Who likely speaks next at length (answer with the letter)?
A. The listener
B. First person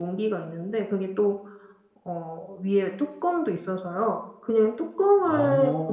B